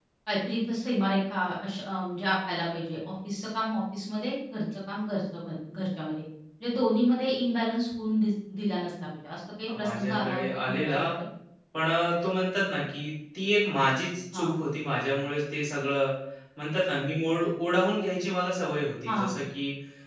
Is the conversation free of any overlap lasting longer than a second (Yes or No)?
No